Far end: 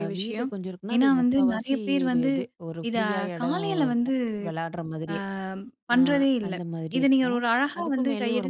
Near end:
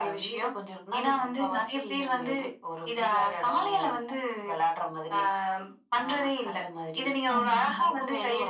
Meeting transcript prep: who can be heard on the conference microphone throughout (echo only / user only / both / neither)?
both